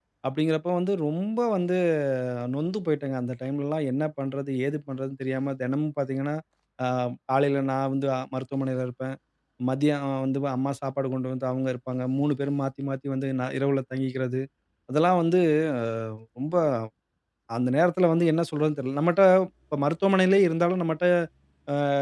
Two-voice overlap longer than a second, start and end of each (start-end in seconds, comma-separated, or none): none